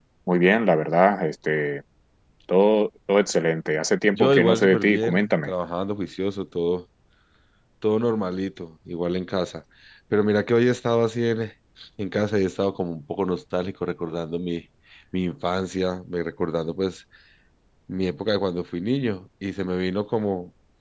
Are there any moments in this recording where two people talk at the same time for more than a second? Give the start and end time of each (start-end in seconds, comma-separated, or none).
4.1-5.5